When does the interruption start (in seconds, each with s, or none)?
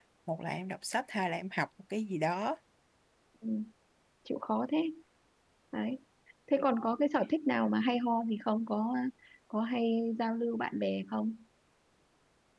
none